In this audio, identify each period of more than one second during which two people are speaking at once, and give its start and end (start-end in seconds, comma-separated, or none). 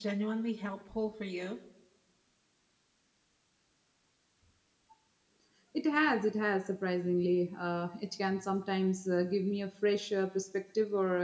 none